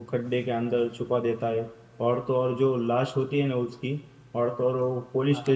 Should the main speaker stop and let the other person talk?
No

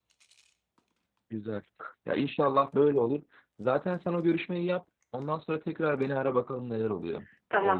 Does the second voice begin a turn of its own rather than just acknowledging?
Yes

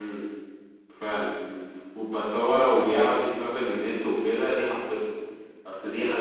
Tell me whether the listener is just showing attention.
Yes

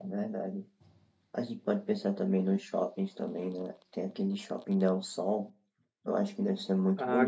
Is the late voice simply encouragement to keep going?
No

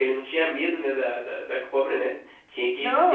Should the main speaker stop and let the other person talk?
Yes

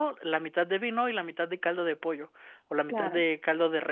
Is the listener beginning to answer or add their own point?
No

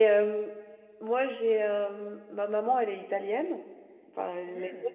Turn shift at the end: No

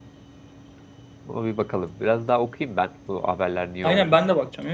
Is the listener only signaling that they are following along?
No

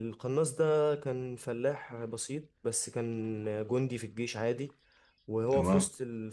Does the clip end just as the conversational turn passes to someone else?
No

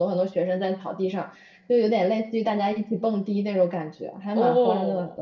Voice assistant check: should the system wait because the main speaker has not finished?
No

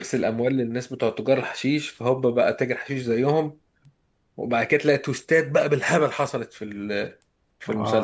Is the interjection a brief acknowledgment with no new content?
No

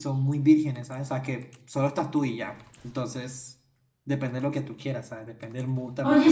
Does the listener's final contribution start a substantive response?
Yes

